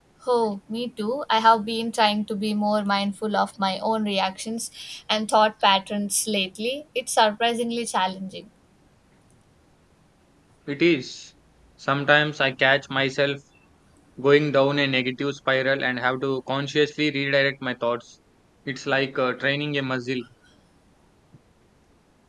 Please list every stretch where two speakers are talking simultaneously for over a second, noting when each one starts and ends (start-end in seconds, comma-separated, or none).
none